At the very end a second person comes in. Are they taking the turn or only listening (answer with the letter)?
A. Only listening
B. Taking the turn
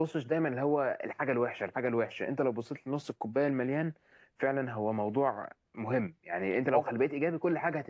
A